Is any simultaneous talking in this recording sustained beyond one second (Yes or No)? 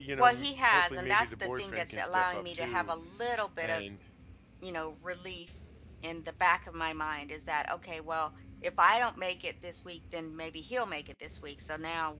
Yes